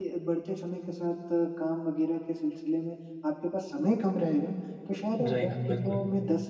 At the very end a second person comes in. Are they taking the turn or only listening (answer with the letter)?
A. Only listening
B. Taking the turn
A